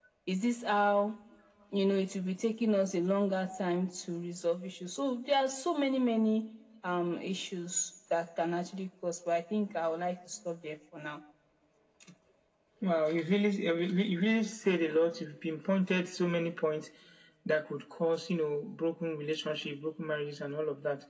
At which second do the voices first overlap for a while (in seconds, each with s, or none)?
none